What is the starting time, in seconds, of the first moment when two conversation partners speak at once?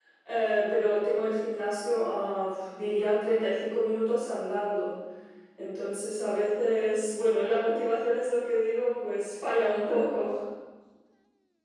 none

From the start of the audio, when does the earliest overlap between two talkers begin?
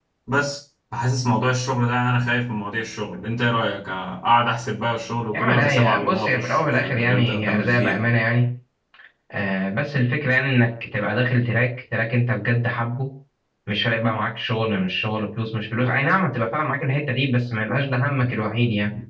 5.3 s

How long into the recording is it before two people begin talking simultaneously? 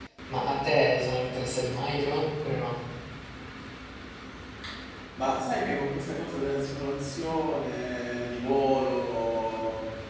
none

